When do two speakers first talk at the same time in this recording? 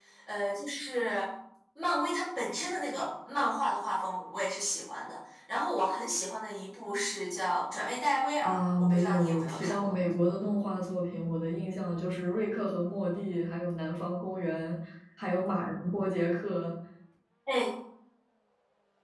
8.4 s

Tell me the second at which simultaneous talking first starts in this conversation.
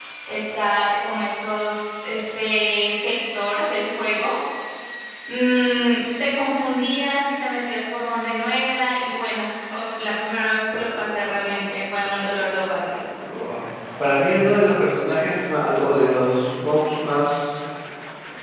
none

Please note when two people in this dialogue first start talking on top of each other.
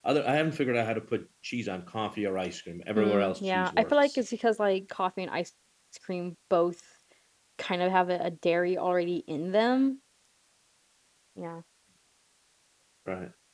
3.0 s

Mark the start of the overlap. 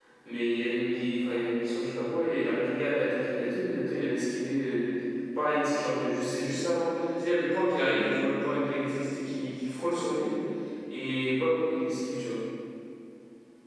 none

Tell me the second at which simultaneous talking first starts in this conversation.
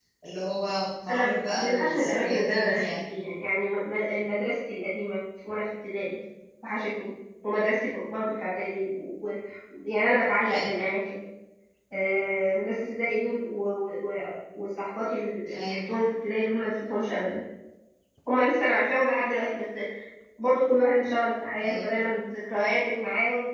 1.1 s

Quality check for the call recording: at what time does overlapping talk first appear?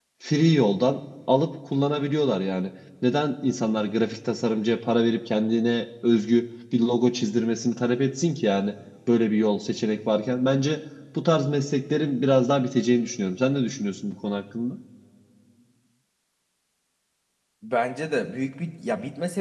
none

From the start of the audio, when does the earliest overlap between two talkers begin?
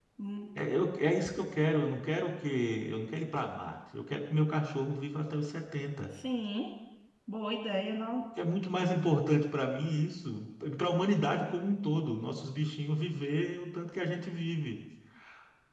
none

